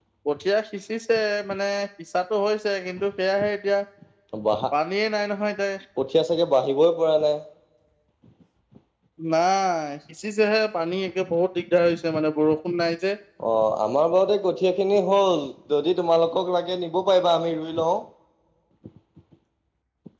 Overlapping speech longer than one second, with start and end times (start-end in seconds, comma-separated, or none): none